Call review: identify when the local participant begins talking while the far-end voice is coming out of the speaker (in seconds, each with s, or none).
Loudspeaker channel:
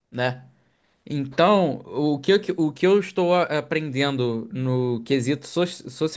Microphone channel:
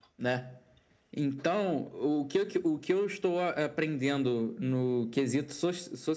none